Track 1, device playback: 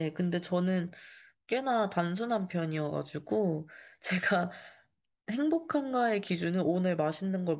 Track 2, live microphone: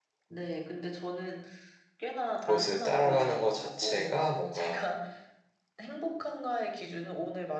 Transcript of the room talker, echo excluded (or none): 그것을 따라가는 것 자체가 뭔가